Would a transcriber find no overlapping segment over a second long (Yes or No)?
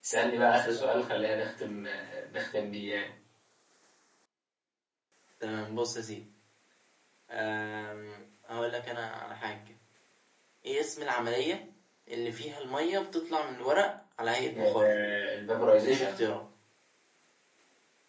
Yes